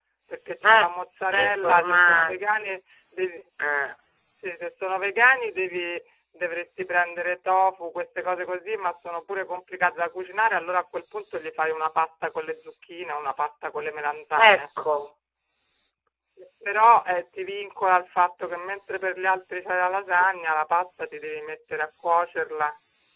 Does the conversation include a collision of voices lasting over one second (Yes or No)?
Yes